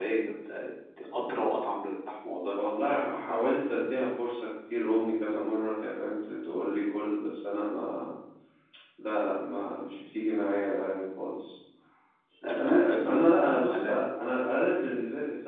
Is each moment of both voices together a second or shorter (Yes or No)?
No